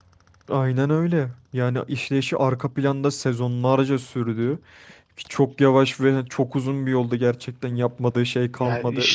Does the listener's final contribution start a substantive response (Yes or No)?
Yes